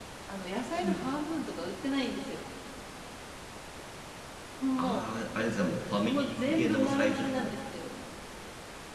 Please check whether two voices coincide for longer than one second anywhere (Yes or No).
Yes